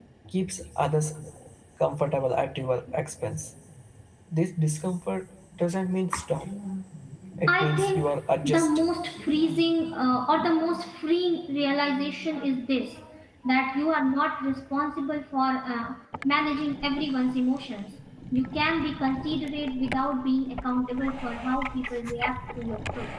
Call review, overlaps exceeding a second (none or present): present